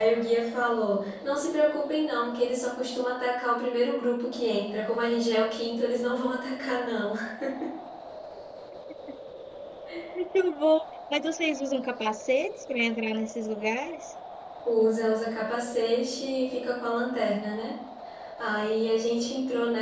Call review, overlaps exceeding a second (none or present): none